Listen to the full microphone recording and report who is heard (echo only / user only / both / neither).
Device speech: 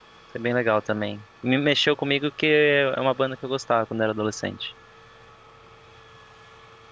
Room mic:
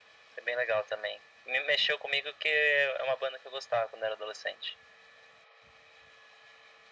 echo only